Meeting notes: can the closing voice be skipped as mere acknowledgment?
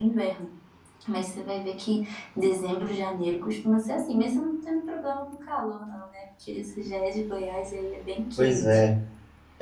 No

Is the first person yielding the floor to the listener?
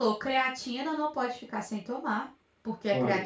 No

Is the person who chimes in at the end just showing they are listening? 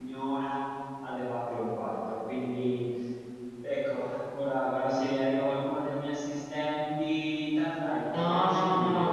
No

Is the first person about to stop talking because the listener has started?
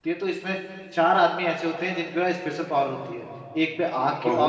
No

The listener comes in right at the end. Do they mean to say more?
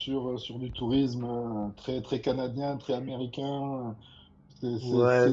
Yes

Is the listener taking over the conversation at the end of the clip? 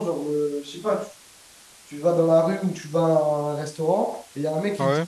No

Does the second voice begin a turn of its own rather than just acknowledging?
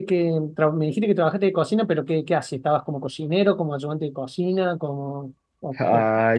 Yes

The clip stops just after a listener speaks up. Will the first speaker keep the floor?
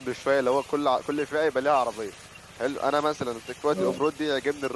Yes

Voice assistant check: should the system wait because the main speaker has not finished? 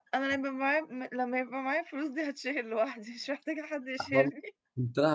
No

